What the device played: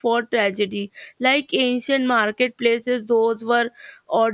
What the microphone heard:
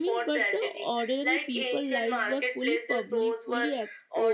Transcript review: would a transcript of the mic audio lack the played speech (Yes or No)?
No